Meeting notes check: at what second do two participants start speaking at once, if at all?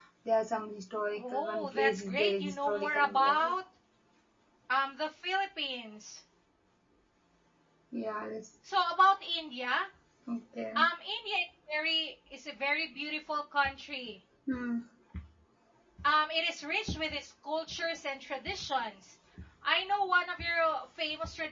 1 s

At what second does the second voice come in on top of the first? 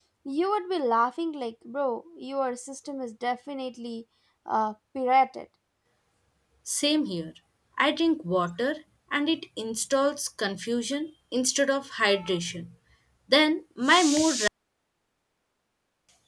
none

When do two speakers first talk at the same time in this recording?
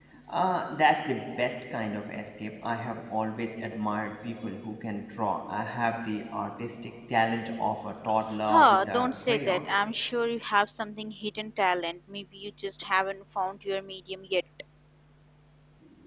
8 s

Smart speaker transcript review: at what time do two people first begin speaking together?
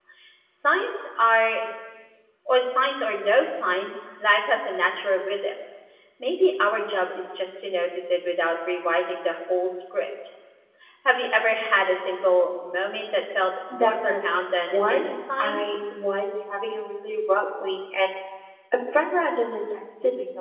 14 s

